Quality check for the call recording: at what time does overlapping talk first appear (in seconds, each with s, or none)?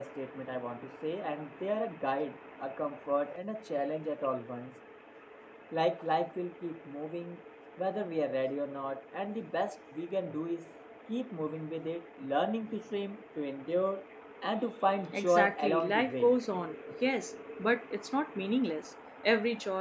15.1 s